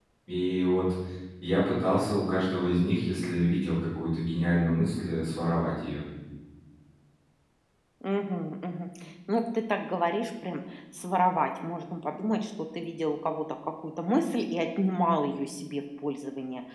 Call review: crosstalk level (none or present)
none